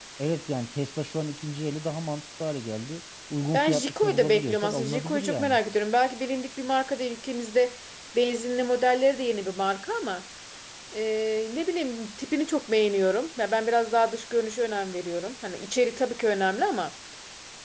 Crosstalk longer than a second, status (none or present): present